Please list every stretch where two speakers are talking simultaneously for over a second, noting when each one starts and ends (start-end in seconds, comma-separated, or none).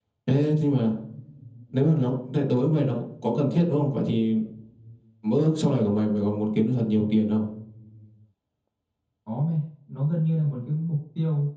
none